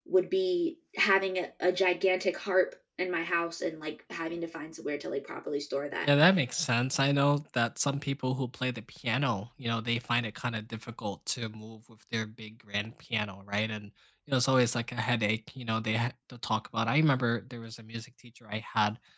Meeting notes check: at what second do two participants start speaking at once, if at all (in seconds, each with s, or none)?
none